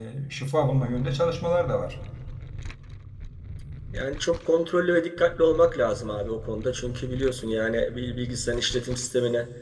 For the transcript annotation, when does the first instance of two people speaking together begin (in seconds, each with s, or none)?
none